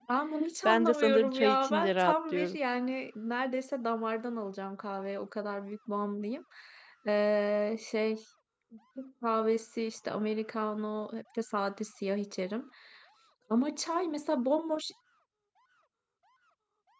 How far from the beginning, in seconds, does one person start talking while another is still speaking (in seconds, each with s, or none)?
0.7 s